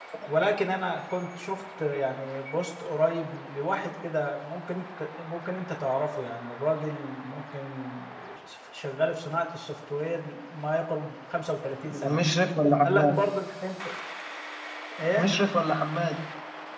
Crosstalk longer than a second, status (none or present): none